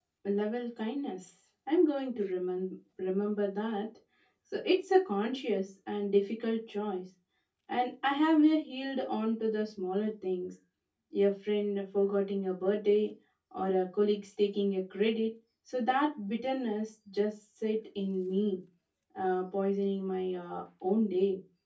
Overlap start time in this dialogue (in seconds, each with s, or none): none